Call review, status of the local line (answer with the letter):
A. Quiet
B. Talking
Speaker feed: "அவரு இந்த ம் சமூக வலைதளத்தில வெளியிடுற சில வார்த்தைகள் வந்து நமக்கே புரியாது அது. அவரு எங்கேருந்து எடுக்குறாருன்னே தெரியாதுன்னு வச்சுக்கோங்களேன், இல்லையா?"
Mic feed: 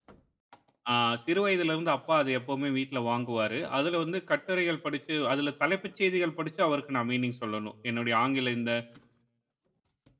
B